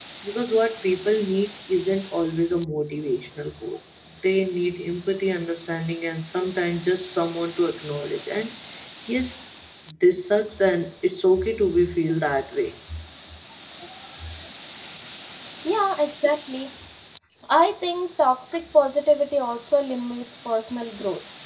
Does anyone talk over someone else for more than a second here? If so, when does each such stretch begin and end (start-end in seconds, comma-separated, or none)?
none